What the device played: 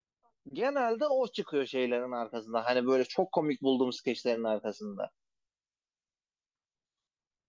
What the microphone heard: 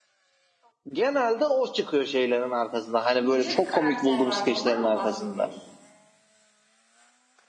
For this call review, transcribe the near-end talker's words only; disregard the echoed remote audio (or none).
bir yüce bir karakter vardı. Ondan mı bahsediyorsun?